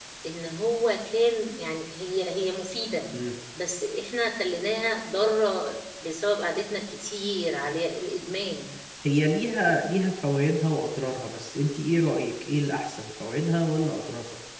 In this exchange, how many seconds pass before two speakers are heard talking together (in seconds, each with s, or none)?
none